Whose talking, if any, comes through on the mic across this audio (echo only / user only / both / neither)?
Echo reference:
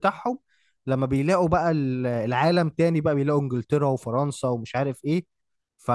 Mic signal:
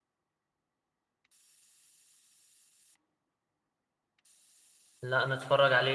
user only